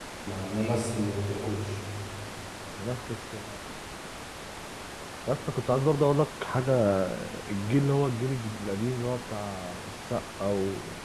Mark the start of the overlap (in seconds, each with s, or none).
none